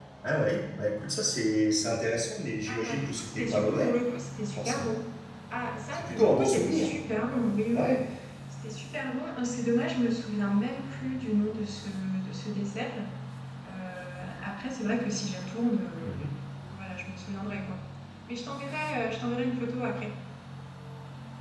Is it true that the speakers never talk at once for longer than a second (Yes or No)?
No